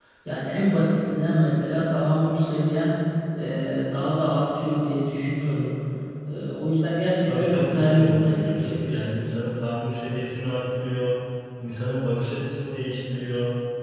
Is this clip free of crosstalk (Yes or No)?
No